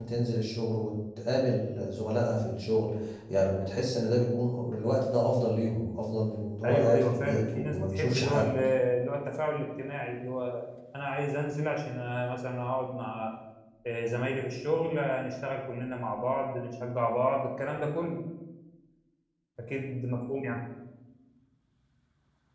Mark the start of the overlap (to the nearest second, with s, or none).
7 s